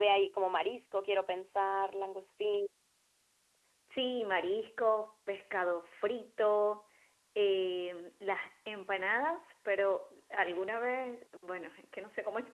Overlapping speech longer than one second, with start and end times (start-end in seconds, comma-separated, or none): none